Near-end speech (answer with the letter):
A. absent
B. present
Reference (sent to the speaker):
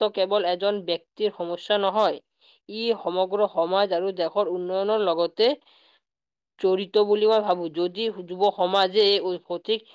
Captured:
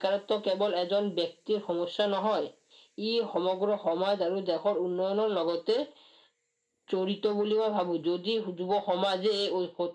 A